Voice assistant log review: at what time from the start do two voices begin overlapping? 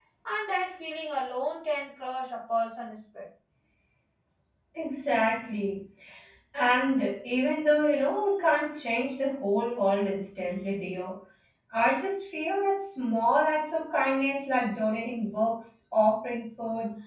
none

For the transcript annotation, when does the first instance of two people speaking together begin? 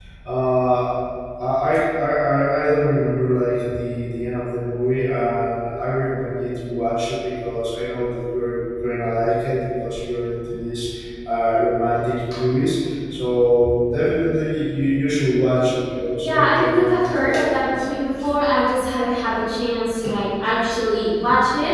16.2 s

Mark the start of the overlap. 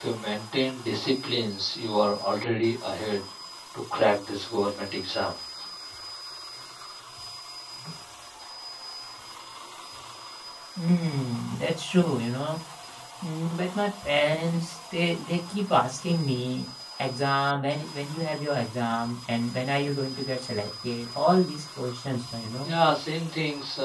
none

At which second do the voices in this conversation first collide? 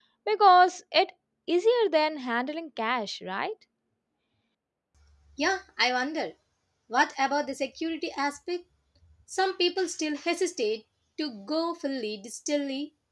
none

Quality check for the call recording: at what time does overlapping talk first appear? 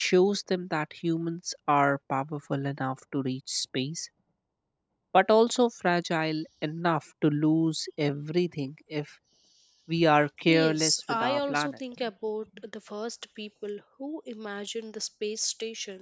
10.5 s

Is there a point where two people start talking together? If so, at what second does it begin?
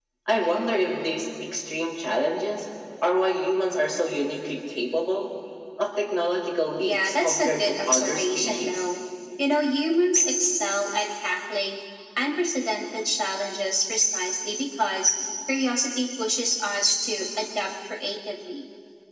6.8 s

